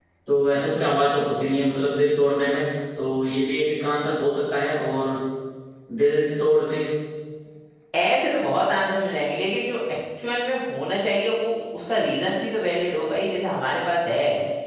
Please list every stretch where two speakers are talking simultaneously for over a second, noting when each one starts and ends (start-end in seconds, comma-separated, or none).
none